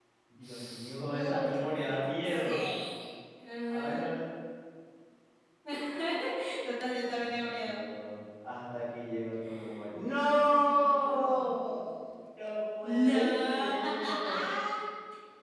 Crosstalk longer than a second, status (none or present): present